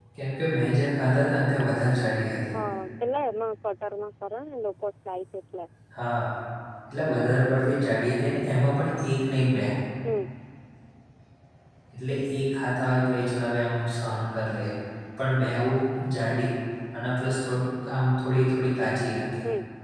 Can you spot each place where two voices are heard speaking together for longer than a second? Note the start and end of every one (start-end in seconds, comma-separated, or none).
none